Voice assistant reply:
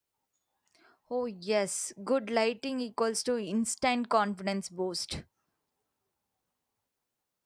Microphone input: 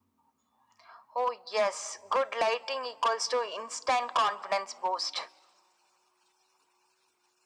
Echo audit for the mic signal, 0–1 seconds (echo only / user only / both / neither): neither